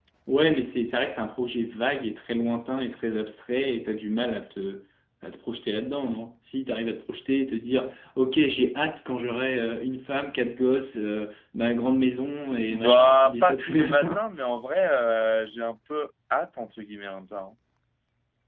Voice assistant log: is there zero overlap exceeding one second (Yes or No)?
No